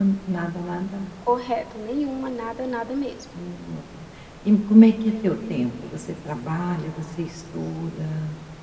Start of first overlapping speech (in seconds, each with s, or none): none